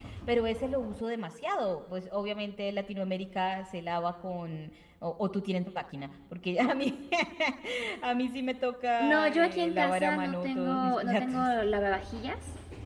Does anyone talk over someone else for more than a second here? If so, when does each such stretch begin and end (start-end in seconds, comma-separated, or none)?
9.0-11.5